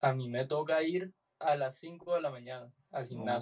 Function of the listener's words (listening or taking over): taking over